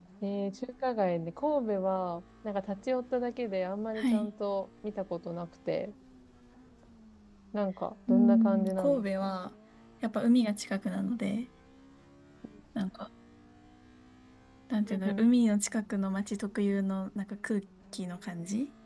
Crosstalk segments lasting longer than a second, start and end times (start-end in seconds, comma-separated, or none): 8.1-9.4